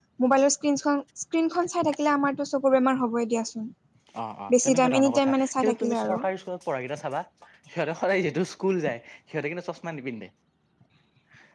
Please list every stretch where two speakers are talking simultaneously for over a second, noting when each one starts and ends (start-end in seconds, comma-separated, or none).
4.5-6.2